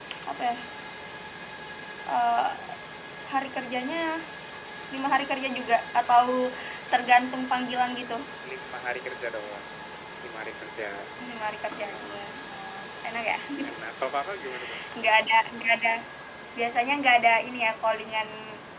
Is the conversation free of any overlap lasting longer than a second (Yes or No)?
Yes